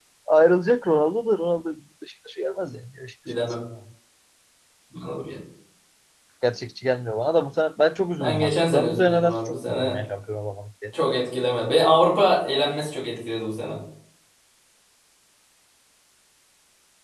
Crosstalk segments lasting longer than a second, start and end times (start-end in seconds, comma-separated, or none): 8.1-10.0